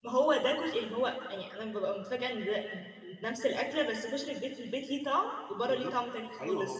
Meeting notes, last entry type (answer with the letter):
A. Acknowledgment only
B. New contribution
B